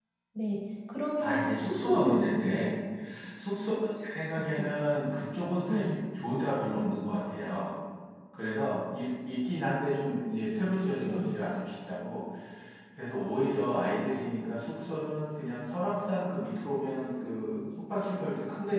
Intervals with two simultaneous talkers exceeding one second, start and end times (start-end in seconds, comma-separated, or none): 1.2-2.6